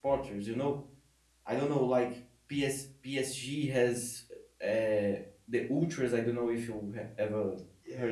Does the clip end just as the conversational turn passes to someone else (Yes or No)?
Yes